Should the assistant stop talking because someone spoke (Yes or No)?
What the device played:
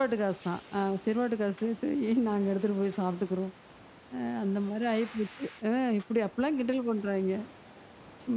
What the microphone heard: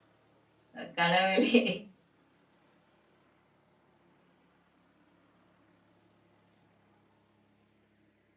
Yes